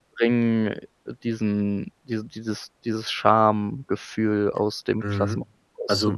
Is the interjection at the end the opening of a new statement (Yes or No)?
Yes